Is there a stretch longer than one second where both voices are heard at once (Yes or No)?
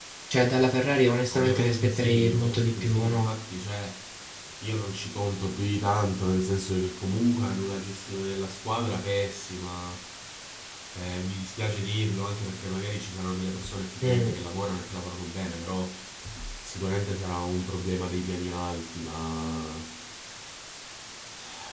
Yes